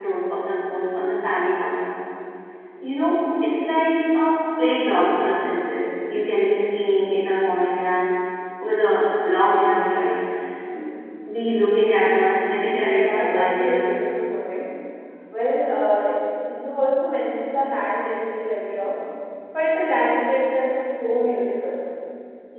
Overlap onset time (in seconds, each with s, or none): 12.7 s